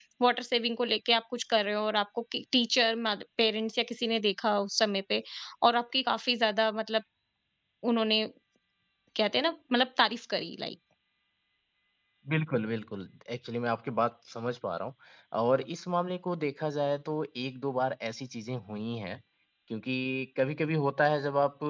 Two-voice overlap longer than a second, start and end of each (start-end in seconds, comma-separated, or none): none